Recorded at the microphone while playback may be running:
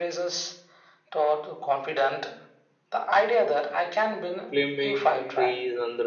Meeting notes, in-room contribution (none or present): present